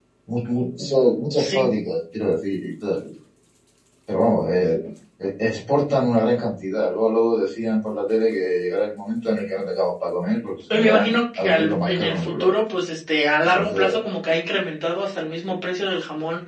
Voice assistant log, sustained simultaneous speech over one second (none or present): present